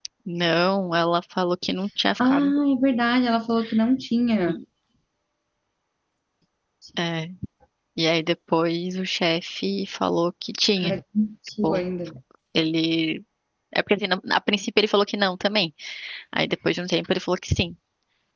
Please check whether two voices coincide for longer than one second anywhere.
No

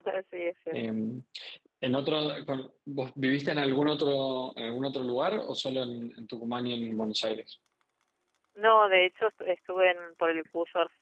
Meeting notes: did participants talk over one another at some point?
No

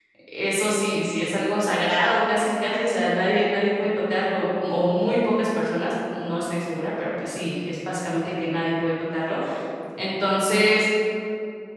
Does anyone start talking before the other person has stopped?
No

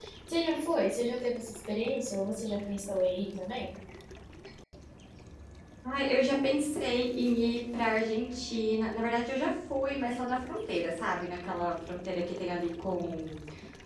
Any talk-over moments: No

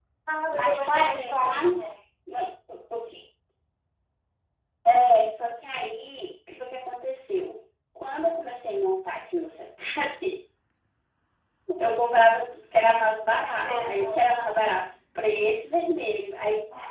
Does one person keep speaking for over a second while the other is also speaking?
Yes, from 0.5 s

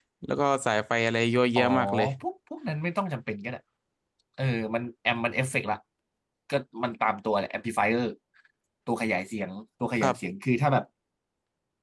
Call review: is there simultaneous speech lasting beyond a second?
No

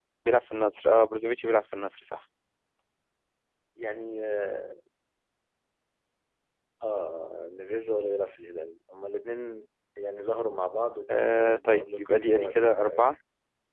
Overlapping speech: Yes, from 11.1 s

